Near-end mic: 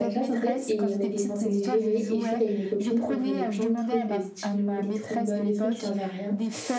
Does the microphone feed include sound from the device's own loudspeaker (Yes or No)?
Yes